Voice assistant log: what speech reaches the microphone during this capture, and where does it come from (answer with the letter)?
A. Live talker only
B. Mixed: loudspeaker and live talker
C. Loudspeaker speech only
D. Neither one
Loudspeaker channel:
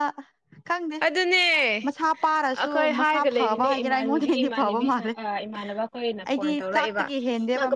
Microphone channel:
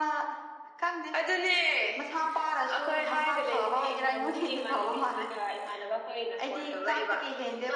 C